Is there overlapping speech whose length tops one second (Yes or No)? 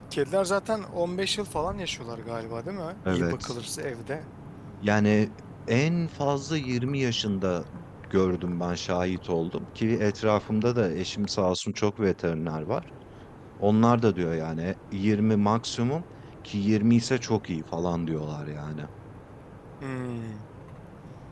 No